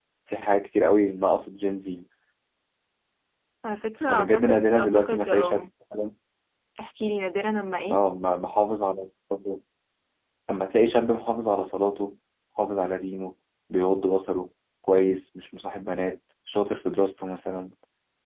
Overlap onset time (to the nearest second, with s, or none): 4 s